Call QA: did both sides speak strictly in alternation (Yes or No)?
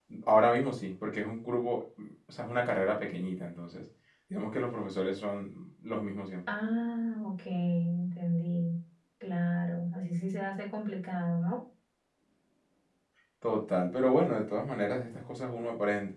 Yes